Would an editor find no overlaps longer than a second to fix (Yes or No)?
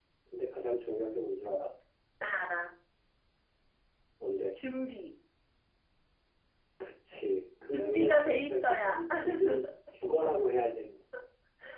No